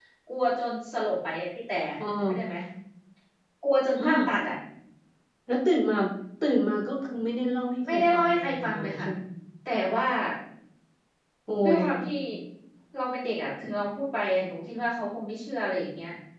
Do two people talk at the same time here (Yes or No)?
Yes